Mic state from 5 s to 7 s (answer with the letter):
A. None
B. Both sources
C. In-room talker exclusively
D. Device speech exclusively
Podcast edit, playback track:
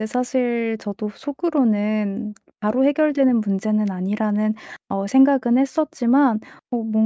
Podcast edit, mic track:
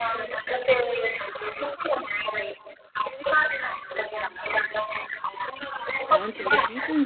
B